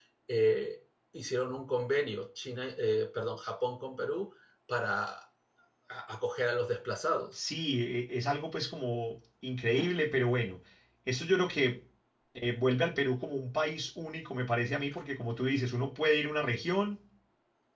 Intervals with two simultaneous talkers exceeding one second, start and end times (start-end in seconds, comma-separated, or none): none